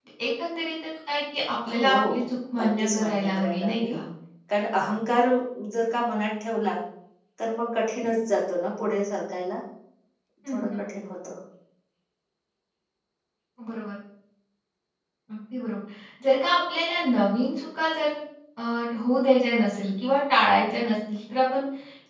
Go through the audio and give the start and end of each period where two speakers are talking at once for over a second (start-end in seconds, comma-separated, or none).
2.6-4.0